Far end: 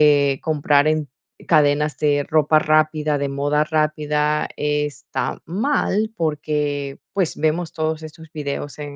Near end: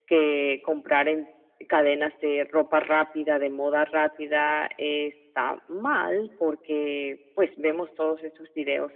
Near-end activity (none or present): none